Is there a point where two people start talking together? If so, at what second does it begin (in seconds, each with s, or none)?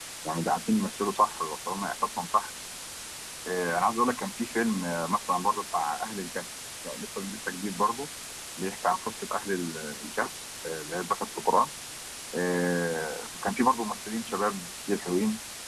none